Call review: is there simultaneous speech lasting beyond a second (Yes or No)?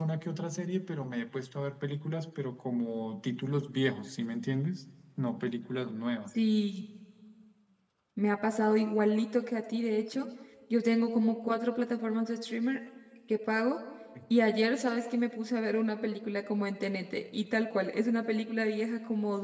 No